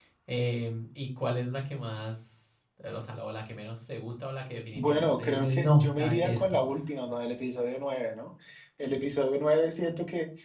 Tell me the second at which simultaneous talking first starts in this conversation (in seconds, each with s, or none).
4.8 s